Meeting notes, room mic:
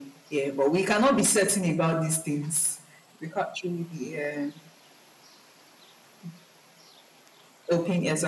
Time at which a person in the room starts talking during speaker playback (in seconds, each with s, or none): none